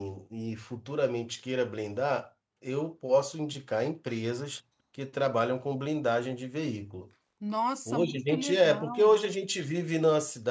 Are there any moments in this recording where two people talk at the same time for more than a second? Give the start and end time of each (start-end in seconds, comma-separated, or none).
7.9-9.2